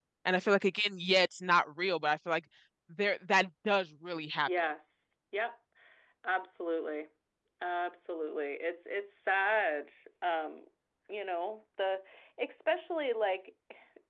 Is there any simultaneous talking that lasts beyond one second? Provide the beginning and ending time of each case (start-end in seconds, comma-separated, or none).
none